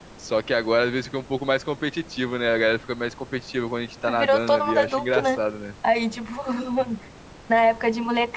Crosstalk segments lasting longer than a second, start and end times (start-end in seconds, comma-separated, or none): 4.2-5.4